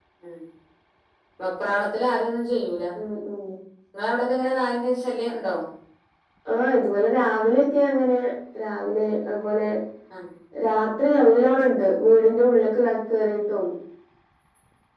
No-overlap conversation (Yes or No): Yes